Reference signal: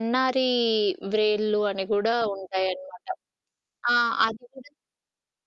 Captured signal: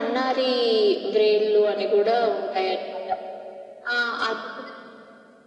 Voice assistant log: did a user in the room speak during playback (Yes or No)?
No